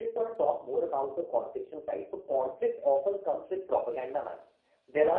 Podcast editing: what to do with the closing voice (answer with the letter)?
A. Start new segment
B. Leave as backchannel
B